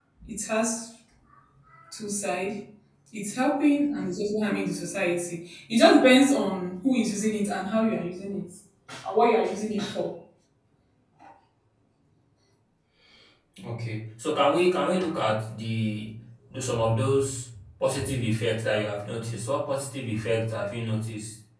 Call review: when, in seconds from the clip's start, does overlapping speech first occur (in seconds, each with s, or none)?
none